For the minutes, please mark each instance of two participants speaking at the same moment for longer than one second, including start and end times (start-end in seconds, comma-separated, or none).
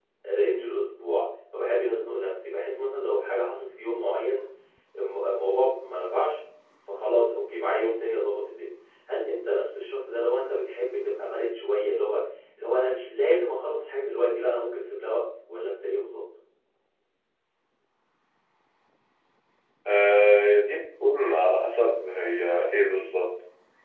none